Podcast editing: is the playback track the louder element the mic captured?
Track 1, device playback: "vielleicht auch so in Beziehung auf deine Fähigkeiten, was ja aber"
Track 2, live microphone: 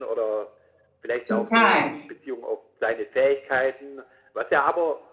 No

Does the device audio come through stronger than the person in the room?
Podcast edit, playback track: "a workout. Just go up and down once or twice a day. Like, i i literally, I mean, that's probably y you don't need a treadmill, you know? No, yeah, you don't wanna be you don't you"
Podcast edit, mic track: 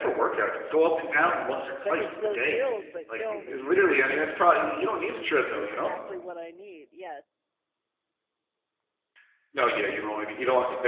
Yes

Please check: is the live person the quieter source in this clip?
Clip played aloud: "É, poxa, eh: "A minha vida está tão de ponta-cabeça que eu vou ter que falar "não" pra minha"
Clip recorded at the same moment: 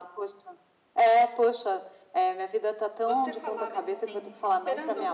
Yes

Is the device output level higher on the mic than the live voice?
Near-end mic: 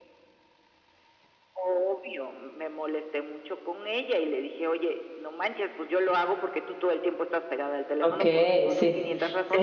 No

